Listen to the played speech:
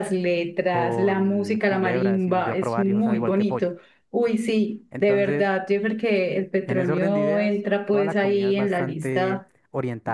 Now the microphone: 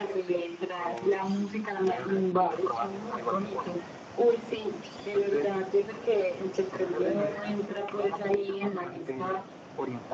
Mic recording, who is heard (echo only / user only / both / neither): echo only